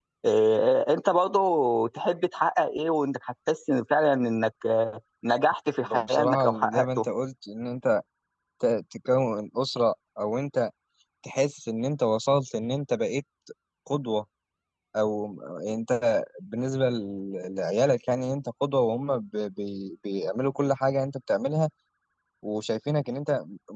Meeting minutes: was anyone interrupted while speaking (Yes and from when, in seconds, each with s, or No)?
Yes, from 5.8 s